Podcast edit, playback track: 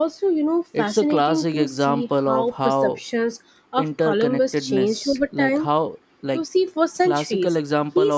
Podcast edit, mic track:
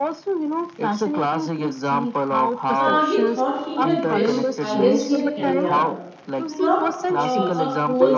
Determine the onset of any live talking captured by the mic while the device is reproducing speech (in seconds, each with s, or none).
2.8 s